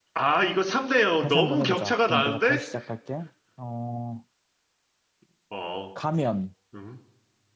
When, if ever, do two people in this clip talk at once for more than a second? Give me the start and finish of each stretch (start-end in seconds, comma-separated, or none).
1.2-2.6